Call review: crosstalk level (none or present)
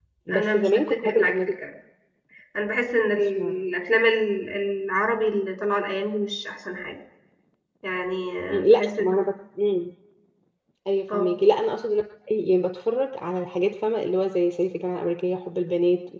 present